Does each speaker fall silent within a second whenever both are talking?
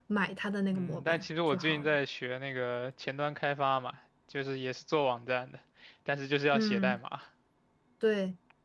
No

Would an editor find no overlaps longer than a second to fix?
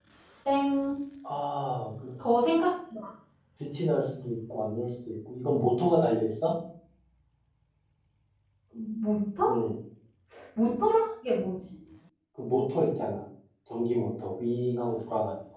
Yes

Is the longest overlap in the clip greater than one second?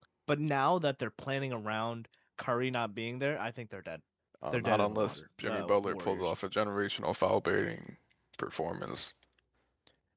Yes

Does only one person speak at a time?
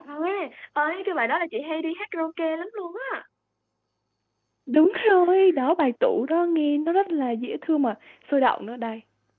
Yes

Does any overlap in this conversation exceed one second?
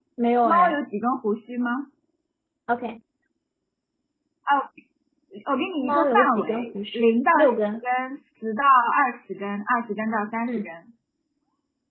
Yes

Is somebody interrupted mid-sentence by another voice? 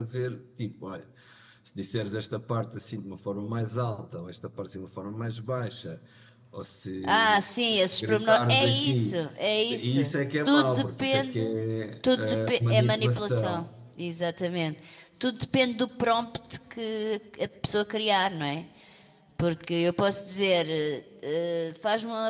Yes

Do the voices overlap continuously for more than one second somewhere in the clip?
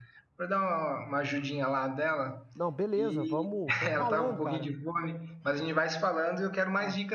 Yes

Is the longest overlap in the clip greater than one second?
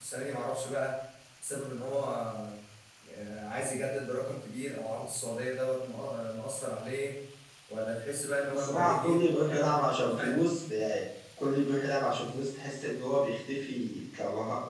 Yes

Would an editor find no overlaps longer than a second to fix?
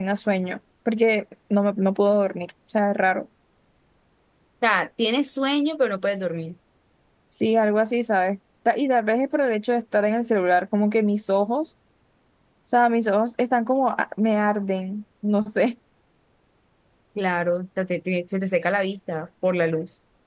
Yes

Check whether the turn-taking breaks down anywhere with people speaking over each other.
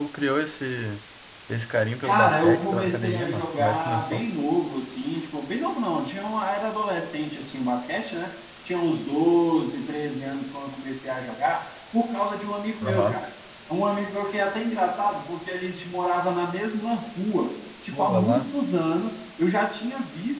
Yes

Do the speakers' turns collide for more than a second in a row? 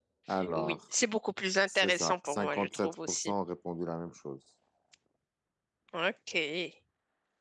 Yes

